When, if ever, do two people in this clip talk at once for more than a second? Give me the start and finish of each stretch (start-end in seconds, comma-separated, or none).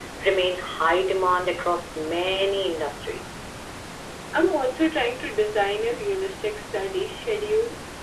none